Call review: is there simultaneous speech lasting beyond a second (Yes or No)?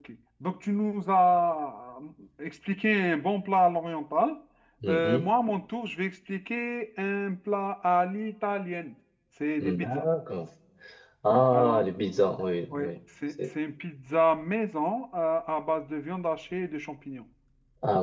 No